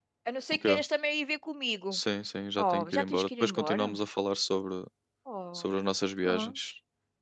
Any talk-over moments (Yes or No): Yes